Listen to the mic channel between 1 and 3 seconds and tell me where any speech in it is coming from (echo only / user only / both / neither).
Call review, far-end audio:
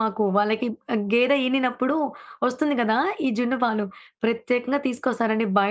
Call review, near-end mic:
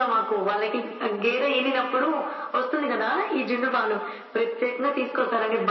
echo only